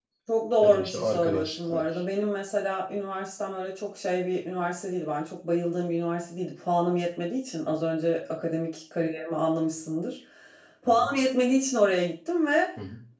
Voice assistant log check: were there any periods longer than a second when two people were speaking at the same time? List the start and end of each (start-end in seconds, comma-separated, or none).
0.6-2.0